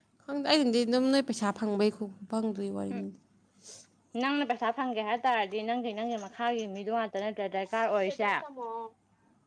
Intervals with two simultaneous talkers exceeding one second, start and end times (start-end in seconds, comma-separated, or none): none